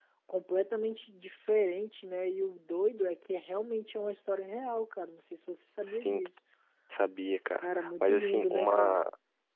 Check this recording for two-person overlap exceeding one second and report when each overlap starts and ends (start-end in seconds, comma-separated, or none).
7.6-9.0